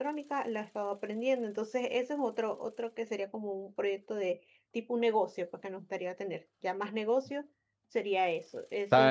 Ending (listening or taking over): taking over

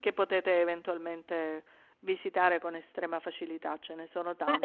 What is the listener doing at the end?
taking over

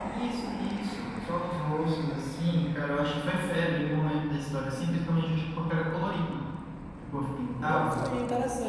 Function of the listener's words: taking over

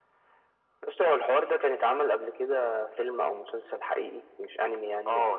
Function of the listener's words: taking over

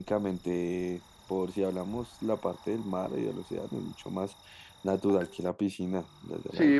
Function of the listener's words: taking over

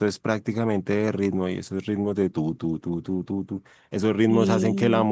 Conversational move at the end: listening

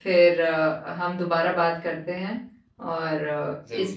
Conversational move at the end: listening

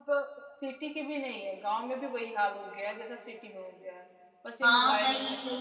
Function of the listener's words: taking over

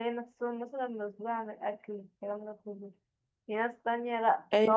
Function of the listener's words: listening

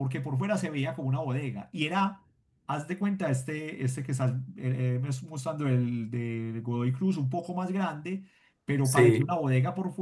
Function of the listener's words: listening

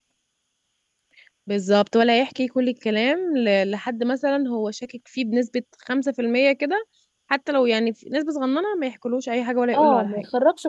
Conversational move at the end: taking over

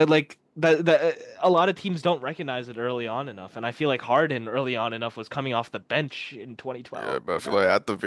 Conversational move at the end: taking over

